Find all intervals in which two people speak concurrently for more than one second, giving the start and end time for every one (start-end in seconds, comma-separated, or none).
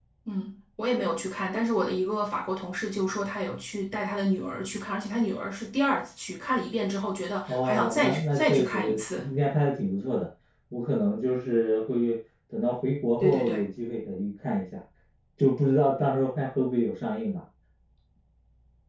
7.5-9.2